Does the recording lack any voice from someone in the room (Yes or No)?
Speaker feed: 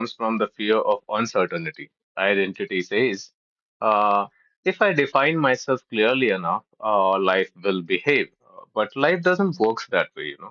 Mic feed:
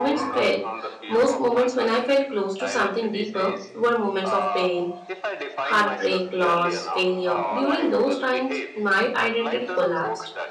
No